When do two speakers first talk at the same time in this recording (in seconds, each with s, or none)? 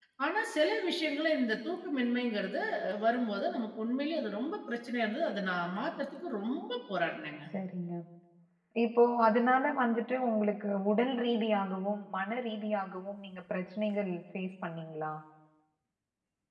none